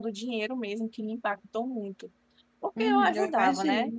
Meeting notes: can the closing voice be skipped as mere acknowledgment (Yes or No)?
No